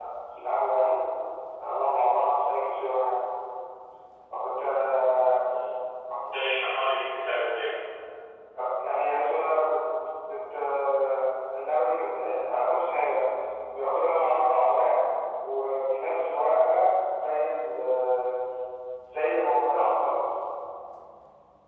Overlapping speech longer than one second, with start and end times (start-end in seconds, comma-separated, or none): none